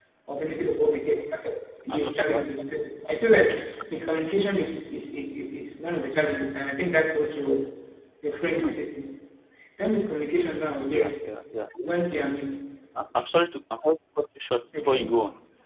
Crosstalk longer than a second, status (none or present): none